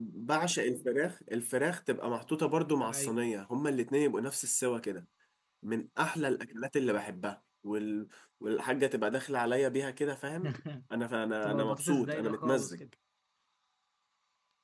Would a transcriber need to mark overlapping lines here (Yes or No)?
Yes